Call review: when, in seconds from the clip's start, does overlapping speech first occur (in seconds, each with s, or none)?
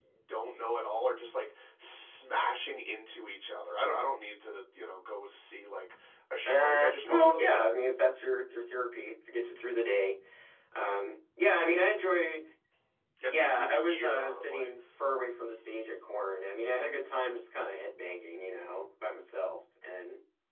6.4 s